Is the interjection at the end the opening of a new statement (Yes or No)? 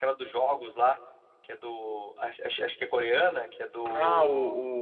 Yes